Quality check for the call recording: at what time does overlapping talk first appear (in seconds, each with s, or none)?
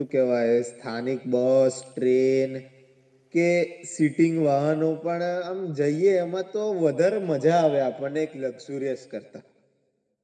none